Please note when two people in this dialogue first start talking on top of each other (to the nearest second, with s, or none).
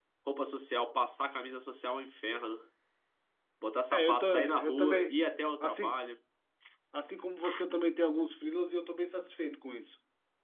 4 s